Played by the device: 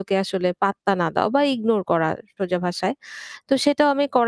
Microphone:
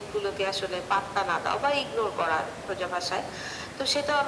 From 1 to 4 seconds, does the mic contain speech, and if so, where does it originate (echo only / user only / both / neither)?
echo only